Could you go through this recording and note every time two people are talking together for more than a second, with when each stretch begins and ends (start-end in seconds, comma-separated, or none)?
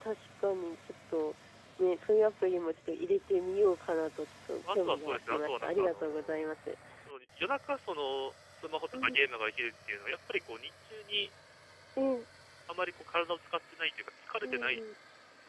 4.7-6.4